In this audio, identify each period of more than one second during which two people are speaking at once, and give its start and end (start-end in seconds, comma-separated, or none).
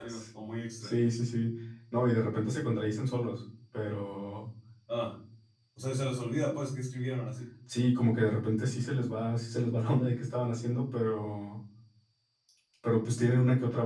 none